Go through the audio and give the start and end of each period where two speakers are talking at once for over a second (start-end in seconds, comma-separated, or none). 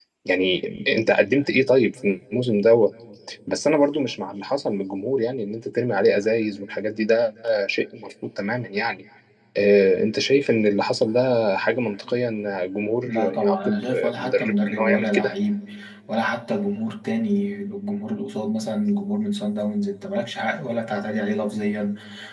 13.0-15.3